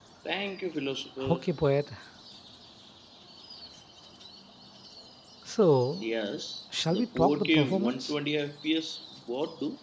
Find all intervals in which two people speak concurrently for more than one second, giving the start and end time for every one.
6.9-8.1

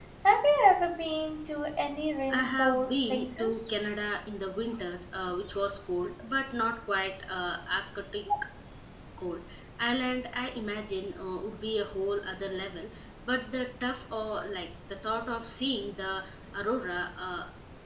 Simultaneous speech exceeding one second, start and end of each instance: 2.3-3.7

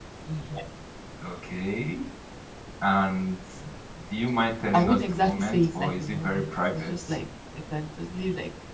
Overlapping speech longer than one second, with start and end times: 4.7-6.9

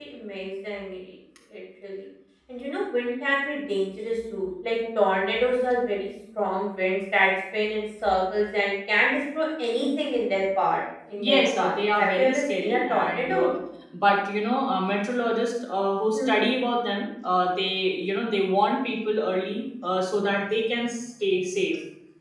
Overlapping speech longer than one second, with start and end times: 11.2-13.5

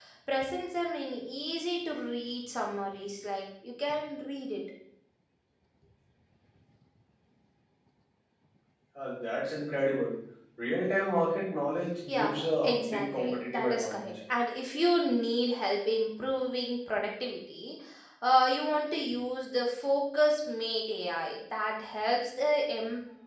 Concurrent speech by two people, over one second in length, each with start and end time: 12.1-14.1

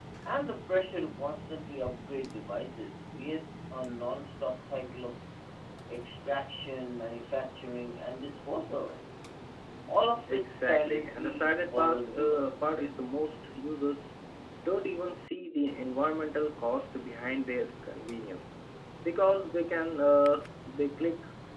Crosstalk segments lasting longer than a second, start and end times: 10.3-12.8

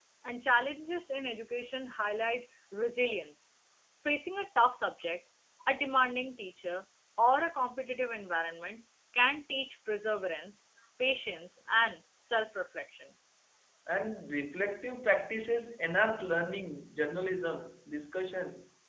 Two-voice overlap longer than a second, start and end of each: none

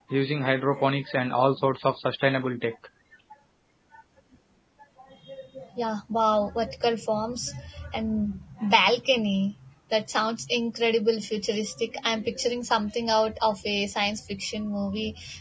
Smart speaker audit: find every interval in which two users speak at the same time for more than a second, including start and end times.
none

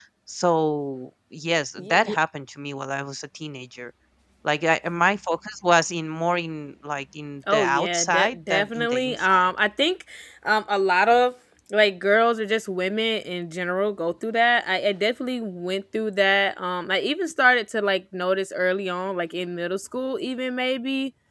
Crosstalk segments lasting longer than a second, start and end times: 7.5-9.5

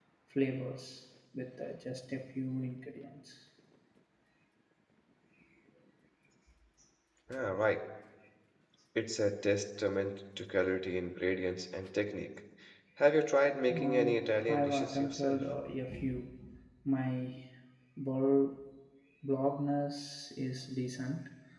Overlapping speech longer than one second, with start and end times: 13.7-15.4

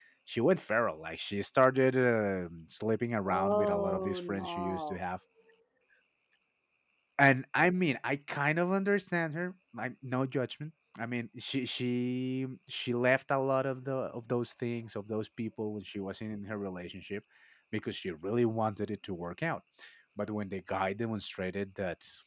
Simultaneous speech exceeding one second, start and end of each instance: 3.3-5.0

